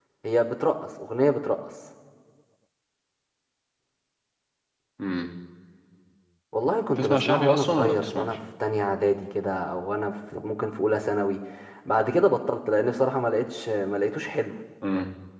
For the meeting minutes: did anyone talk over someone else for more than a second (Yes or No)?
Yes